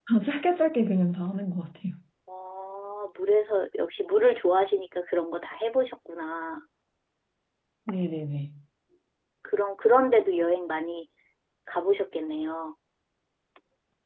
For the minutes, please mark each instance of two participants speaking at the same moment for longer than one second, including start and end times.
none

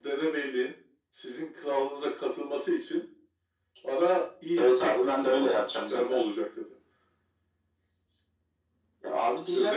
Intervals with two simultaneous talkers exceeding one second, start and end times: 4.6-6.2

